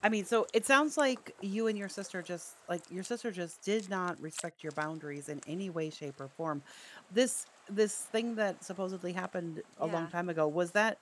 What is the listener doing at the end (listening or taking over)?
listening